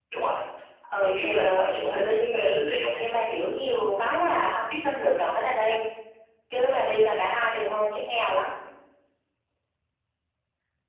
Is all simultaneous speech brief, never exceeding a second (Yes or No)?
No